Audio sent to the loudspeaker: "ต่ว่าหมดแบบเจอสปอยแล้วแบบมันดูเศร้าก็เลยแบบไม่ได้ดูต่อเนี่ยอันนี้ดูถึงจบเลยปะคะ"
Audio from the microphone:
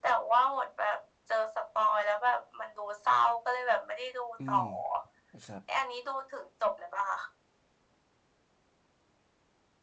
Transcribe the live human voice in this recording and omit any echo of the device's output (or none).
อืมนะครับ